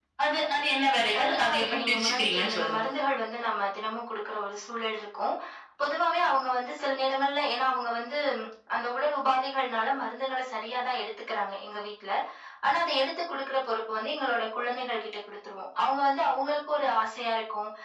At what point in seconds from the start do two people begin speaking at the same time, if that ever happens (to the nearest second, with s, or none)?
1 s